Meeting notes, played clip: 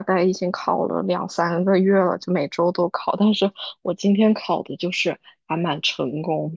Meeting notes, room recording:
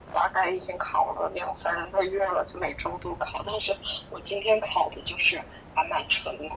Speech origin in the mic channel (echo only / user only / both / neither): echo only